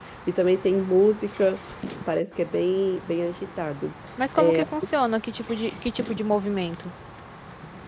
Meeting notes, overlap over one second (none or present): none